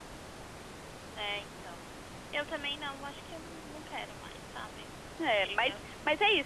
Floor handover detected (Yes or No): Yes